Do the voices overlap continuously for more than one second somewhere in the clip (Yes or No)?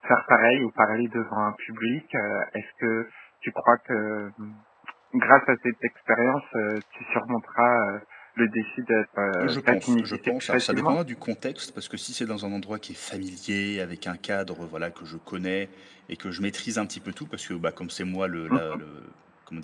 Yes